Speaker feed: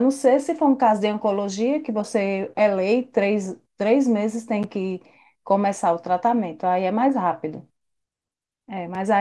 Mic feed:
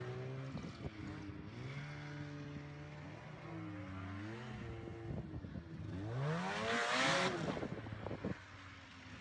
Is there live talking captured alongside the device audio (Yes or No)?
No